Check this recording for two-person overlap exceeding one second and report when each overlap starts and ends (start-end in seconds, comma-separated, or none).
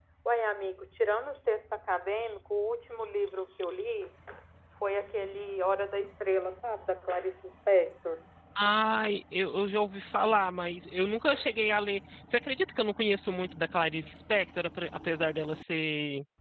none